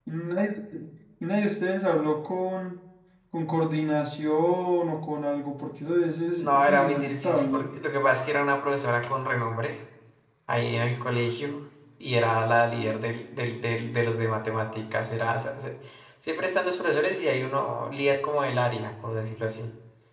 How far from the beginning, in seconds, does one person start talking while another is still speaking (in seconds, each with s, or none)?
6.4 s